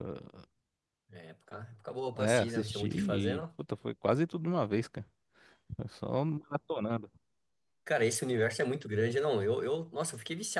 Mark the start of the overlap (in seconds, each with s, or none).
2.2 s